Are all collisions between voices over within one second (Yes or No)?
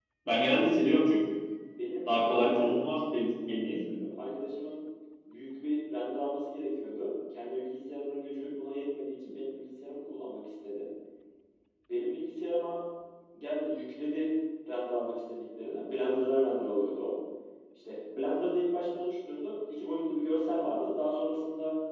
No